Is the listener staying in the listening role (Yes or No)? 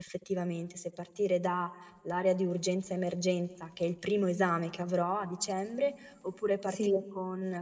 Yes